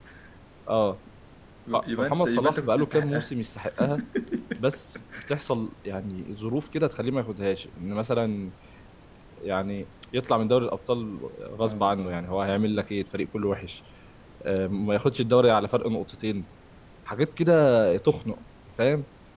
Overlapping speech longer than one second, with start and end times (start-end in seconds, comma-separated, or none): 1.7-3.3